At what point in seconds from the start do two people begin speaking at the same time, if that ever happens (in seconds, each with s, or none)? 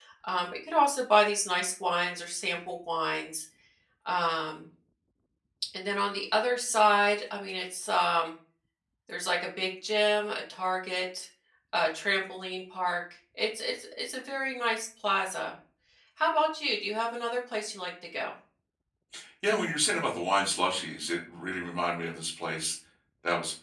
none